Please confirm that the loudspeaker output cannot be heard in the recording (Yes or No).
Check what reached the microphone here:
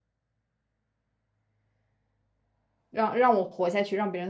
Yes